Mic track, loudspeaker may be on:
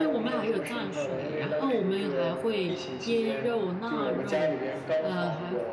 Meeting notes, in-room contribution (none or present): present